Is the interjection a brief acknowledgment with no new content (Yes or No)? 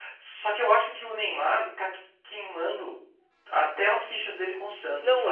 No